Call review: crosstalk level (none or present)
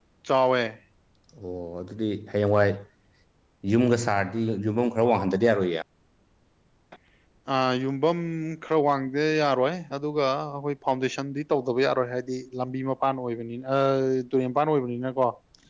none